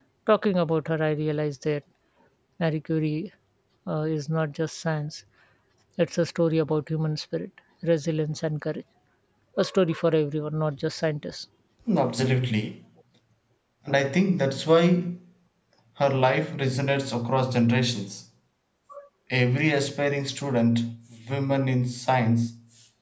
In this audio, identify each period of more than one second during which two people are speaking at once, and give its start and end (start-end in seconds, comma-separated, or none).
none